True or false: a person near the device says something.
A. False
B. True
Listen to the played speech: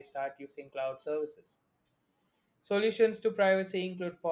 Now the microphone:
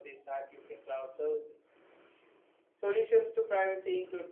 A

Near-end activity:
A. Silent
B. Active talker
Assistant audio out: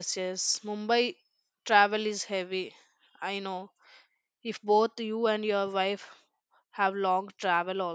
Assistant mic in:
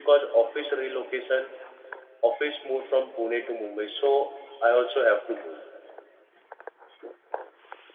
B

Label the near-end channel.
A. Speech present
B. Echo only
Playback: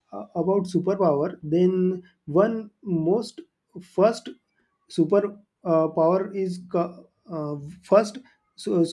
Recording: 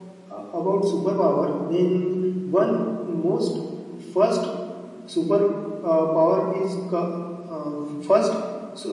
B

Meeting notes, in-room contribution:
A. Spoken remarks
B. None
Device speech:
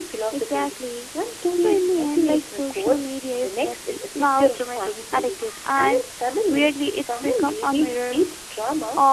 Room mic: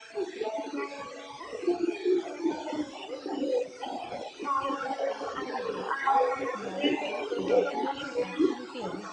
A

